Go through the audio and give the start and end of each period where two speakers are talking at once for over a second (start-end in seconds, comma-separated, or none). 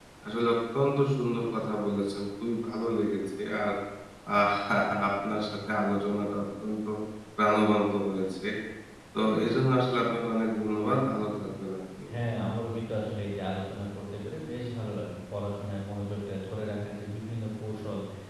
none